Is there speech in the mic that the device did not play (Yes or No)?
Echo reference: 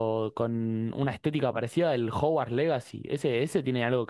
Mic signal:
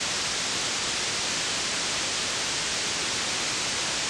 No